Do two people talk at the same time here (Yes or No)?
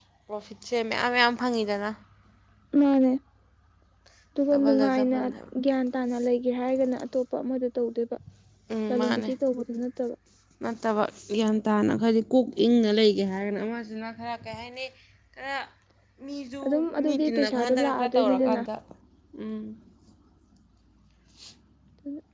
Yes